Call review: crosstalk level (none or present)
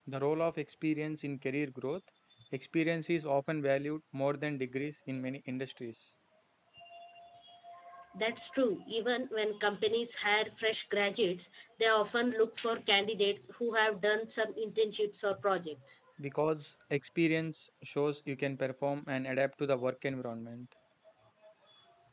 none